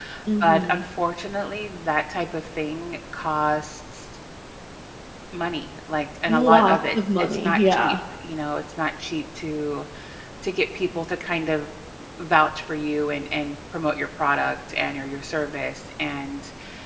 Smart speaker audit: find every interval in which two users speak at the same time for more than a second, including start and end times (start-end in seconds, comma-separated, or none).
6.3-8.0